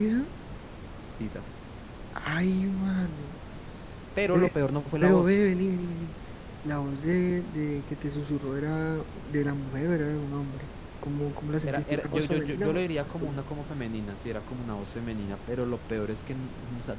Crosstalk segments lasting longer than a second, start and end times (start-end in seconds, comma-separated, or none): 11.7-13.4